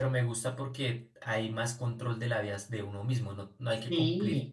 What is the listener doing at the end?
listening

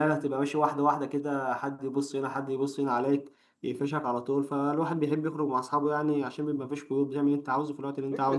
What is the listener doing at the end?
taking over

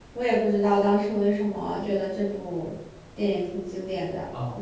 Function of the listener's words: taking over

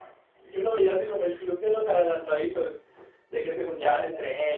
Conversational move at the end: listening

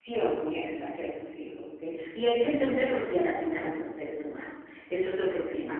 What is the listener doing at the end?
listening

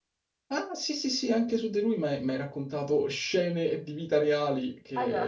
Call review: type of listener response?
taking over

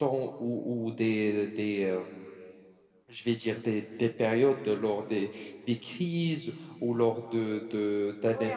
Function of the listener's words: taking over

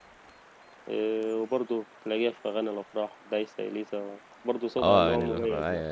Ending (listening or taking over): taking over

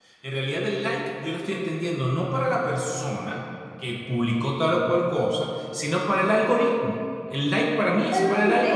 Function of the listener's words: taking over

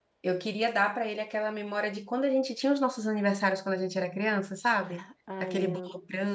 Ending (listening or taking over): listening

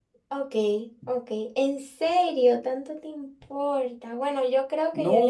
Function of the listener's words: taking over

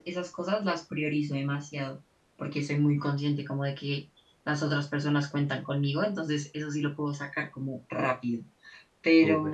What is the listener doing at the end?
listening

